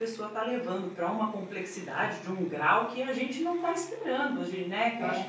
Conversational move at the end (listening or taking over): listening